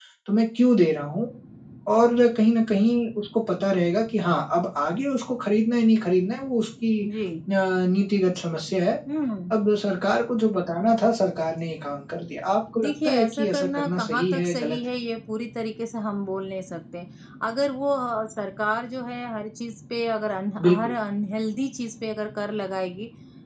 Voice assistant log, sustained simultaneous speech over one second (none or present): present